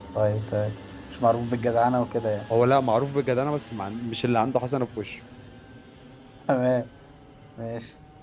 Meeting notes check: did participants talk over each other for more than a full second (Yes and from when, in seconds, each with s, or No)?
No